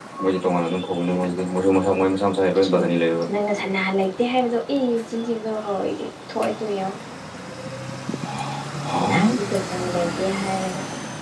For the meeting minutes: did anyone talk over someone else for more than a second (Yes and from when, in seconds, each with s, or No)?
No